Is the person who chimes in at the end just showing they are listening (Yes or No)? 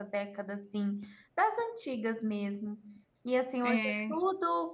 Yes